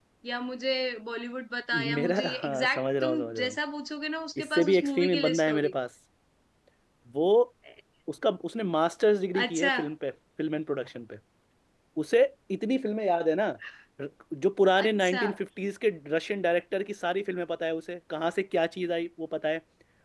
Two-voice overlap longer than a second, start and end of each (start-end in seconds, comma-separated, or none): 2.0-3.6, 4.4-5.7